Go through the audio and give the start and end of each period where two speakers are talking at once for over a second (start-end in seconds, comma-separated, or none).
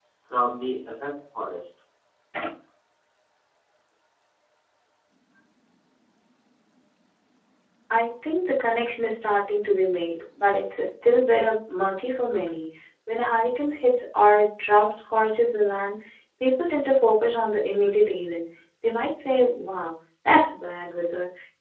none